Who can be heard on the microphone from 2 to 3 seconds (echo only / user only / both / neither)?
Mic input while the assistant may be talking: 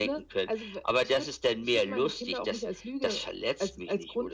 echo only